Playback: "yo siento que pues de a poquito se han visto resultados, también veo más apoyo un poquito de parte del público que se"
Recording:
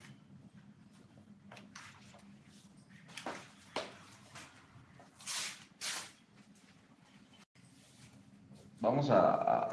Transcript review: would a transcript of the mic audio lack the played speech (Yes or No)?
Yes